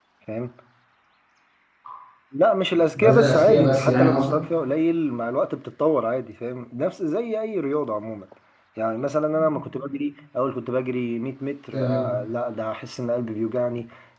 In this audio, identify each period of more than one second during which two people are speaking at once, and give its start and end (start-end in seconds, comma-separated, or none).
3.0-4.3